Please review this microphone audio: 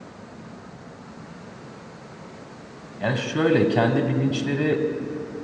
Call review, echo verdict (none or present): none